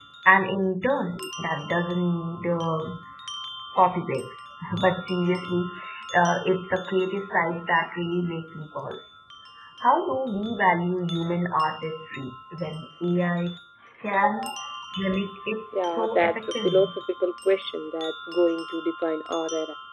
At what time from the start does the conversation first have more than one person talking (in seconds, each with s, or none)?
15.7 s